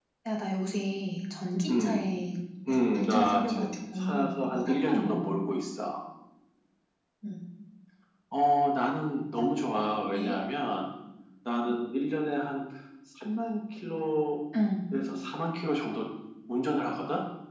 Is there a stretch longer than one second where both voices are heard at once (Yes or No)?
Yes